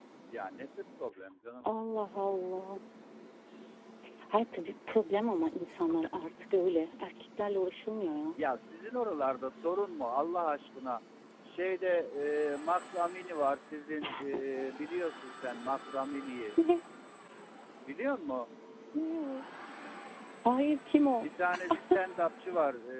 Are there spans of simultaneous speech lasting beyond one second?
No

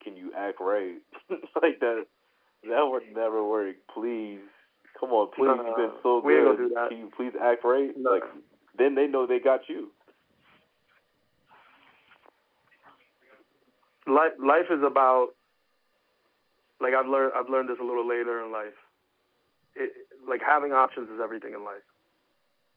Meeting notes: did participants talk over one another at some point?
Yes, from 5.4 s

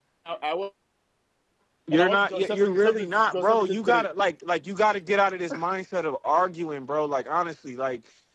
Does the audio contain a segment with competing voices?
Yes, from 1.9 s

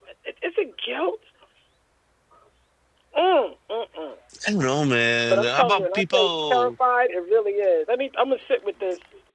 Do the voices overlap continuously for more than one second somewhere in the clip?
Yes, from 5.3 s

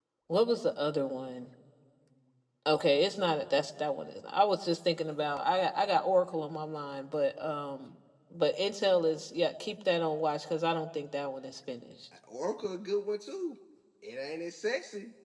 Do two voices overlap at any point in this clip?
No

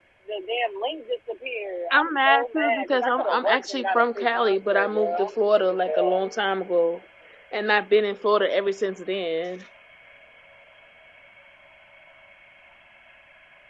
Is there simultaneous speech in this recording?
Yes, from 1.9 s

